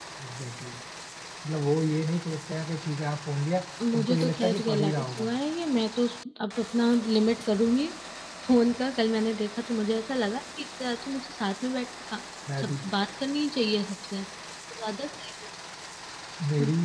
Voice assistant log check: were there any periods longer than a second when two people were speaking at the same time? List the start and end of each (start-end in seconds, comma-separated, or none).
3.9-5.3